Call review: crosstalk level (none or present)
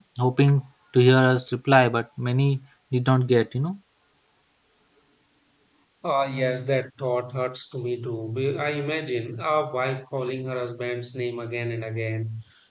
none